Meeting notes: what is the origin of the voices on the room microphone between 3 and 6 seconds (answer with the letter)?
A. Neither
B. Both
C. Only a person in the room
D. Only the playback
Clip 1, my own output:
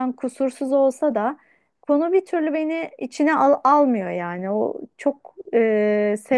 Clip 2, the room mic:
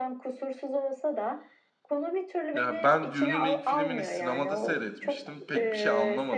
B